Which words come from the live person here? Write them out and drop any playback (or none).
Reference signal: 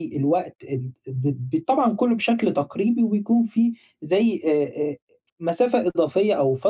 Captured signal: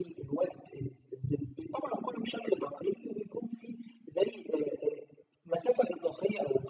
none